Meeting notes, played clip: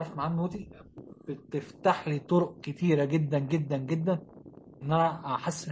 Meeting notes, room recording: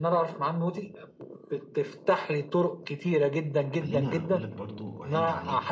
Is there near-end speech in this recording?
Yes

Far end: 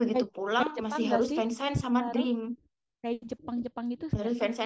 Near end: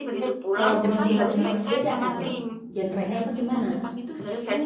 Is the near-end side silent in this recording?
No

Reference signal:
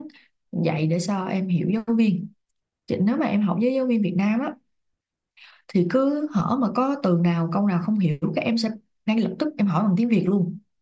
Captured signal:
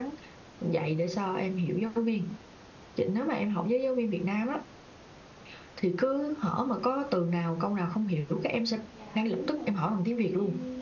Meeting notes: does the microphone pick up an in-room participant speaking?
Yes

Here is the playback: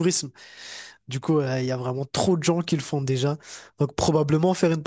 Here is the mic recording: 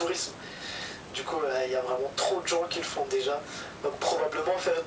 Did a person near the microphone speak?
No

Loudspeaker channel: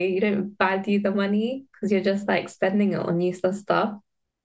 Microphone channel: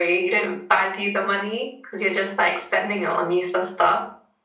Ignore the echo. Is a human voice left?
No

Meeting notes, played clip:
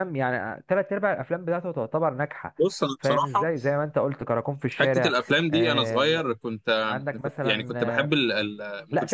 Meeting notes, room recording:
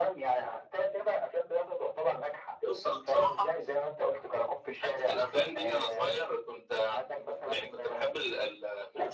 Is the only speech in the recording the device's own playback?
Yes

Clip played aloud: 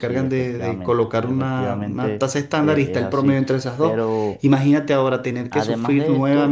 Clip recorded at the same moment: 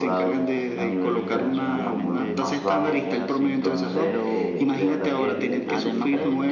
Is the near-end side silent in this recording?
No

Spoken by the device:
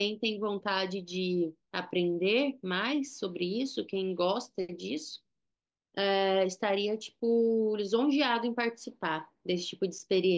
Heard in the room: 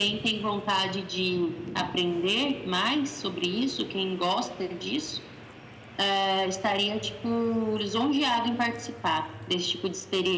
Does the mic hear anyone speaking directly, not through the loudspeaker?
No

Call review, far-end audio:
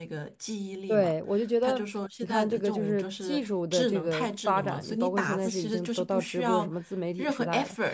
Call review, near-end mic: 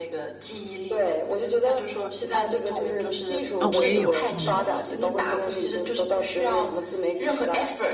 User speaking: Yes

